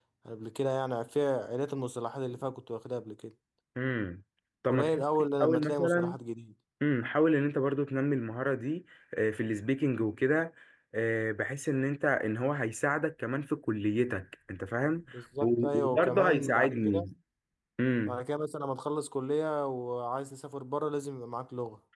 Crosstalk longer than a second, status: present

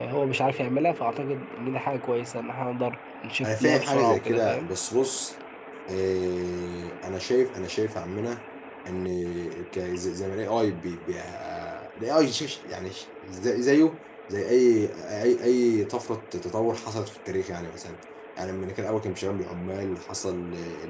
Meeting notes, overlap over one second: present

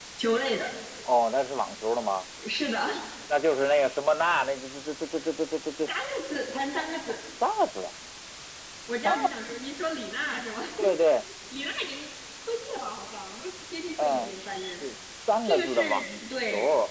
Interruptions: present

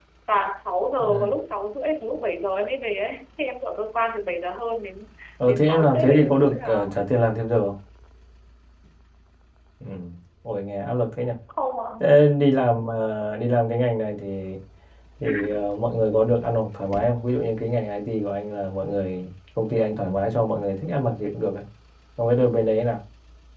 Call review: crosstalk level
present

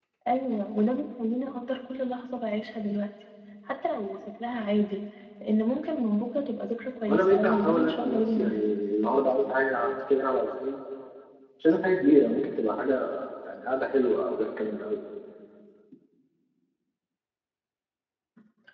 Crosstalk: present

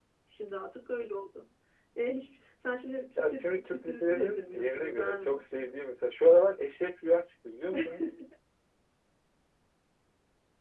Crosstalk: present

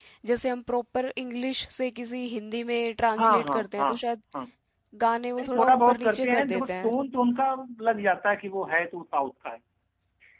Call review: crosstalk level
present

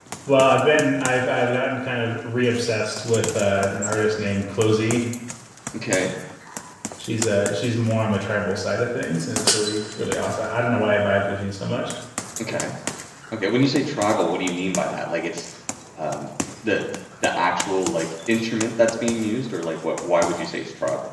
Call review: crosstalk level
none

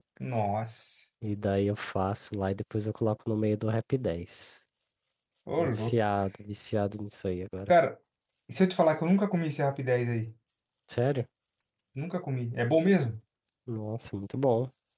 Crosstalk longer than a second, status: none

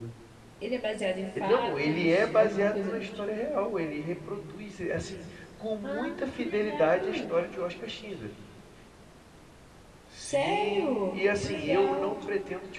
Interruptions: present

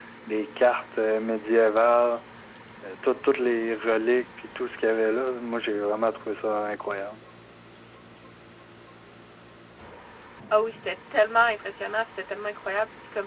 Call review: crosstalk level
none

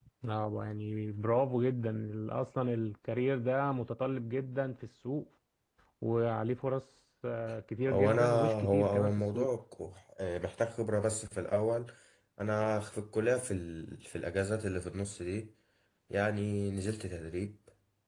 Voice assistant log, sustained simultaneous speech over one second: present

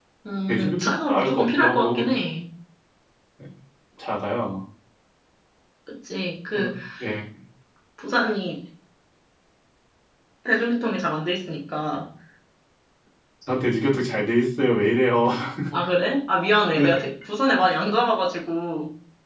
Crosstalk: present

